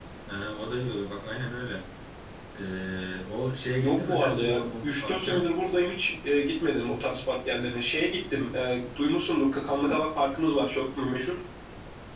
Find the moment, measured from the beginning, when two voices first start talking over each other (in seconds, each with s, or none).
3.8 s